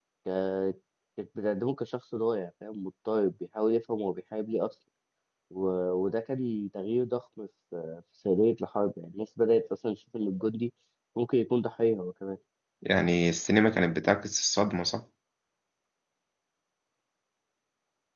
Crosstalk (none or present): none